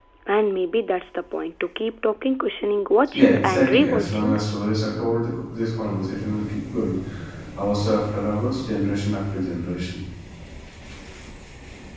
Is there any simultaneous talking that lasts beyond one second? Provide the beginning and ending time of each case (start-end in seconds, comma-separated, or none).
3.1-4.4